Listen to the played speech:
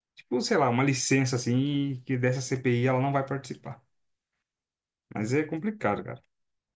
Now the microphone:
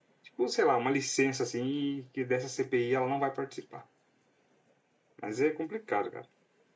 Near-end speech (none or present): none